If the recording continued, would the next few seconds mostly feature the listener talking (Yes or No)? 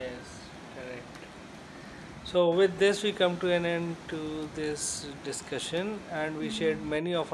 No